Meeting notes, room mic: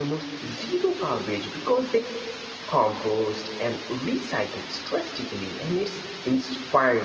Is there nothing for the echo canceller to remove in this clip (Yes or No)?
Yes